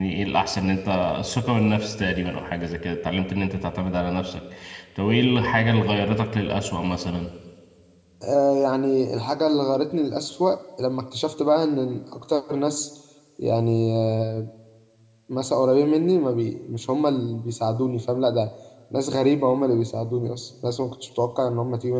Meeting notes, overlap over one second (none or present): none